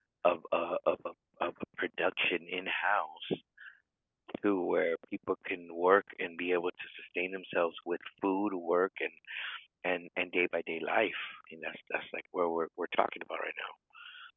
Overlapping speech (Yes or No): No